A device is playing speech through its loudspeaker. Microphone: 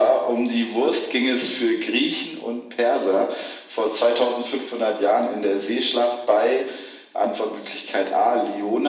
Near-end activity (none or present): none